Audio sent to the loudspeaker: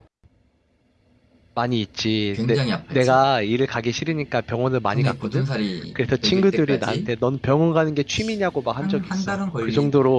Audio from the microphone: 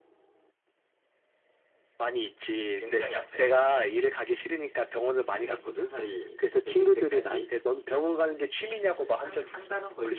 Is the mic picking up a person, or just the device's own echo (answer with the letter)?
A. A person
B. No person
B